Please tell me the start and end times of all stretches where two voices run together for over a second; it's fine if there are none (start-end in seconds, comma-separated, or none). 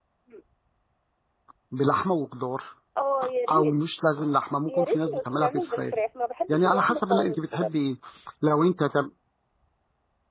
4.7-5.9, 6.5-7.7